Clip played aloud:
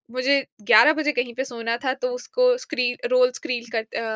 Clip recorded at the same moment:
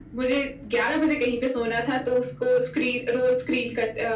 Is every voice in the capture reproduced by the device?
Yes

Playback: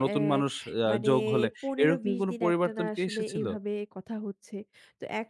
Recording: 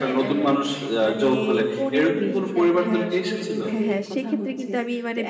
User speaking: Yes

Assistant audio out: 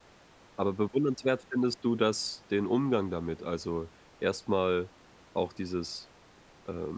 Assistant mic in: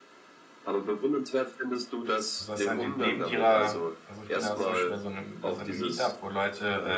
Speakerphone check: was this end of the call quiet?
No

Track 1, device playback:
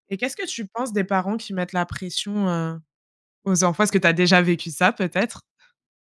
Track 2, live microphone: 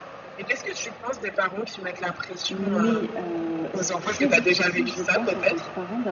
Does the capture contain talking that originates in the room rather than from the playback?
Yes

